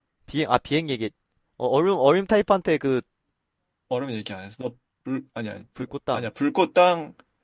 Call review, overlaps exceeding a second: none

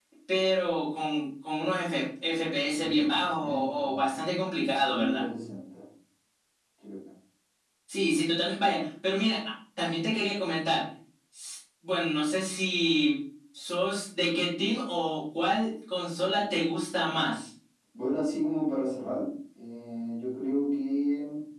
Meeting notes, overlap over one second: present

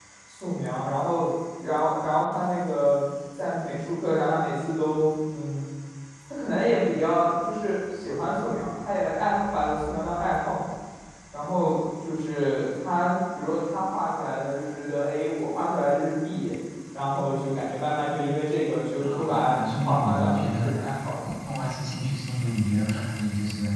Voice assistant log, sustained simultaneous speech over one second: present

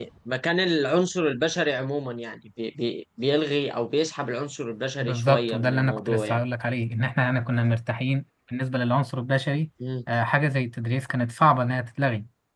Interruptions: present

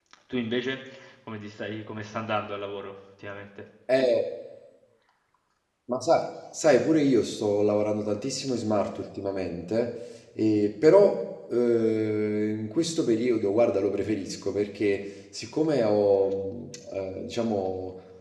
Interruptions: none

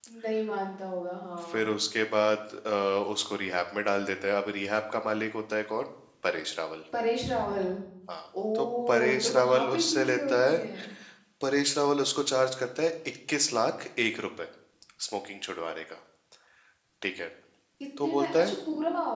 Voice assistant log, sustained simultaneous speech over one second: present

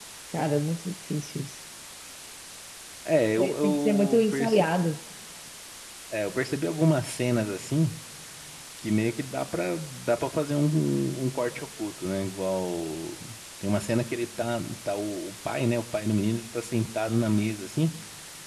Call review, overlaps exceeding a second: present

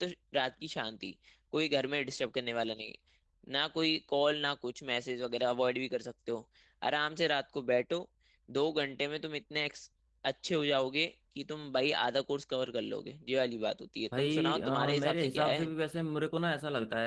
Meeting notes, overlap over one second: present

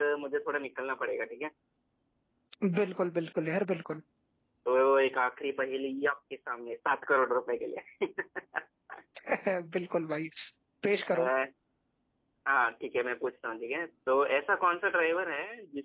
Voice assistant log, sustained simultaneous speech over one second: none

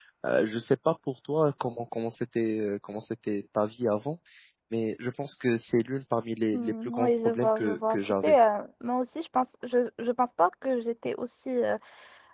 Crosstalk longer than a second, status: present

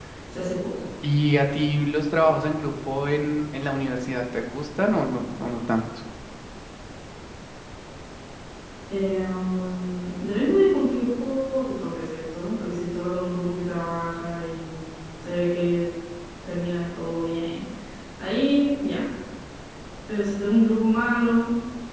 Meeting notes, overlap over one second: none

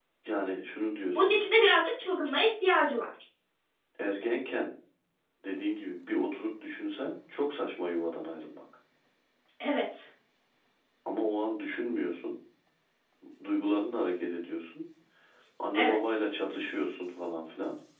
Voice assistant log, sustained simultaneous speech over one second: none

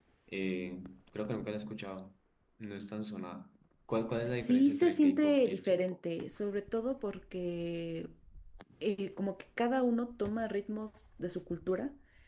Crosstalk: present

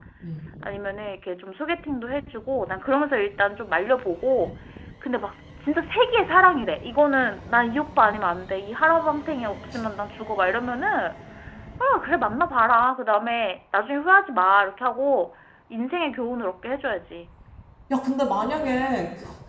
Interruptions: none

